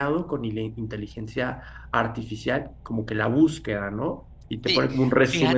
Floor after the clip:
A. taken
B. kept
A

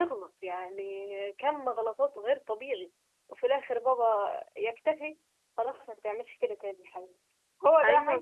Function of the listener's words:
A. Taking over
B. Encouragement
A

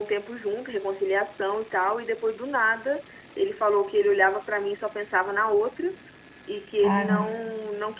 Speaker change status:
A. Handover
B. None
B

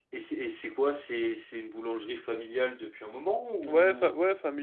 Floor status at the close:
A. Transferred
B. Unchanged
A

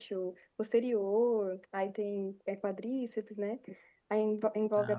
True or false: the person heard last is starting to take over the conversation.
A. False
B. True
A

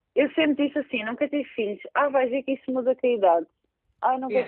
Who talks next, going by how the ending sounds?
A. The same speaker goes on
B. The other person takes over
B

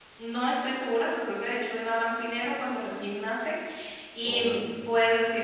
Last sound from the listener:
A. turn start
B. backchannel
B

